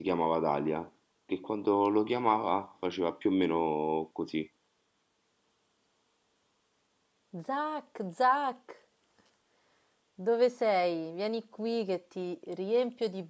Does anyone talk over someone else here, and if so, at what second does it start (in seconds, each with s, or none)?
none